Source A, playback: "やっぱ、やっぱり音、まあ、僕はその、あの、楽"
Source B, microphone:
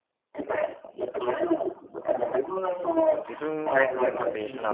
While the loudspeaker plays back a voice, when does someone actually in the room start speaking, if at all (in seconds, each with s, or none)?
2.9 s